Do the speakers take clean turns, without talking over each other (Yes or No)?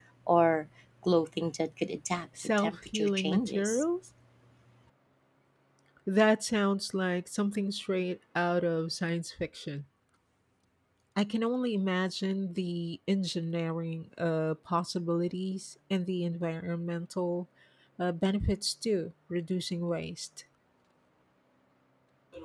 No